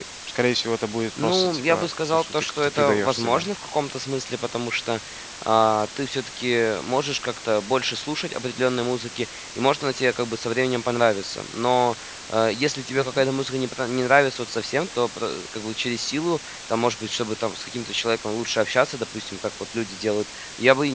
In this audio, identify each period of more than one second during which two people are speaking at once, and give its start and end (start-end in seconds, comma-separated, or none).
1.2-3.5